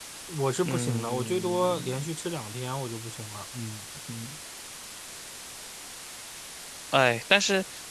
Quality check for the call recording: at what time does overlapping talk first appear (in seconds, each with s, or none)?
0.7 s